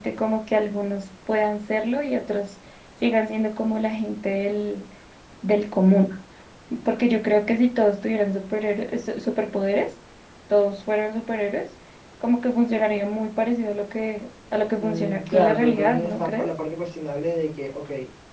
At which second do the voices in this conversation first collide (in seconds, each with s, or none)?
14.8 s